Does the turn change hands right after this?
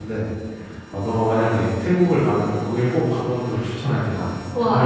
Yes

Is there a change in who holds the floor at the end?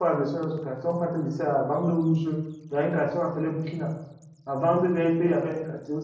No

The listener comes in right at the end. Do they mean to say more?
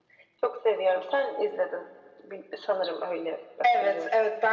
Yes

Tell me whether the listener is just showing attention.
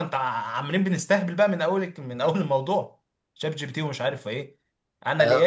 No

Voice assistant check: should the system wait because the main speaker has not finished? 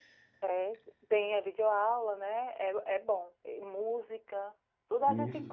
Yes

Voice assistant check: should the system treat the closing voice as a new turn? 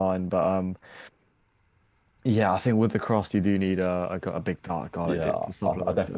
Yes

